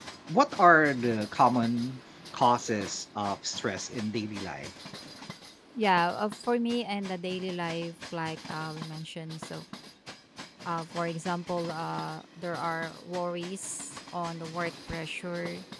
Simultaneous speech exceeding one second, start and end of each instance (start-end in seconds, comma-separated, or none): none